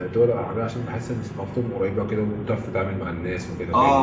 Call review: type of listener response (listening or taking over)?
taking over